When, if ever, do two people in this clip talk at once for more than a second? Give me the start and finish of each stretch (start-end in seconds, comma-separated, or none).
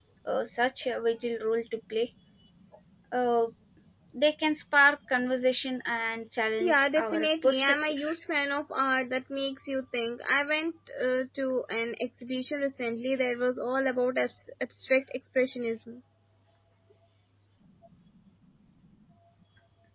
6.6-8.2